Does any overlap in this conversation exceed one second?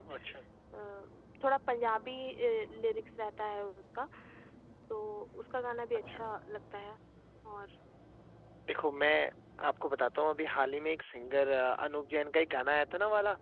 No

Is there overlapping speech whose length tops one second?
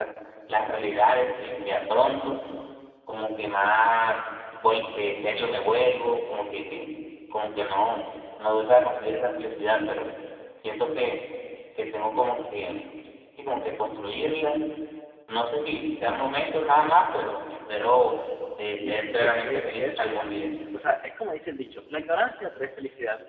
Yes, from 18.8 s

